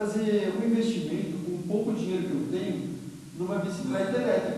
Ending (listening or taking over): listening